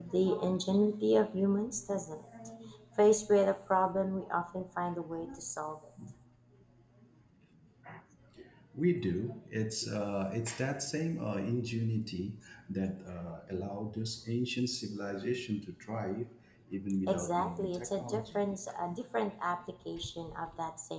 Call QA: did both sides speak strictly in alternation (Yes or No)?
No